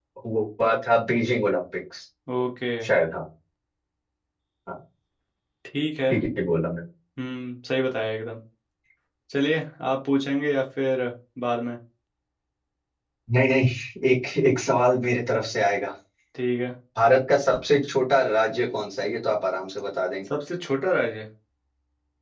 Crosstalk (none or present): none